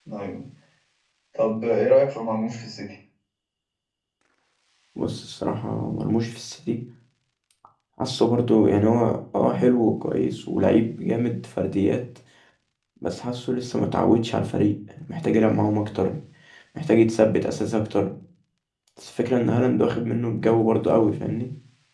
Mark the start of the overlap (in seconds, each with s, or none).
none